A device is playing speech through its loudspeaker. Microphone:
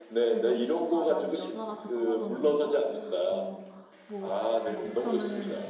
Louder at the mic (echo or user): echo